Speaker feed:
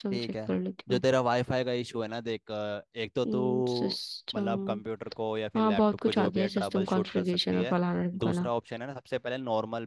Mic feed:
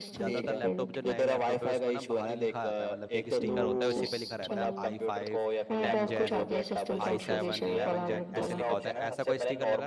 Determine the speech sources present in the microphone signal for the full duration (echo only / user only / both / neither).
both